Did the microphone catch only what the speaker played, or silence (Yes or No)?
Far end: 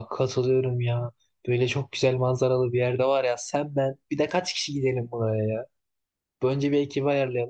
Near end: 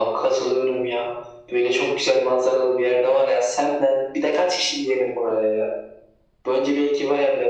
Yes